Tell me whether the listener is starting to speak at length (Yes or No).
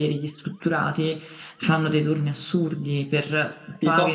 No